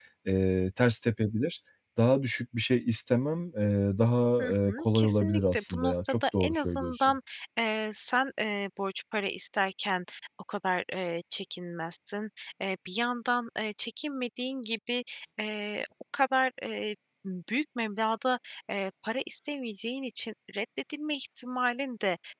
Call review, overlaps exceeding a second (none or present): present